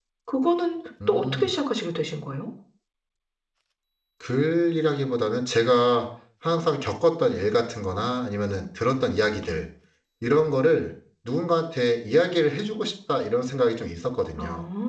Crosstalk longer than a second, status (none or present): none